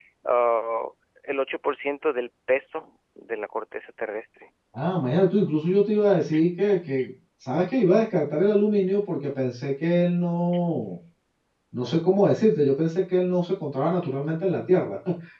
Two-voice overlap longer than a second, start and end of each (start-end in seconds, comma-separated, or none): none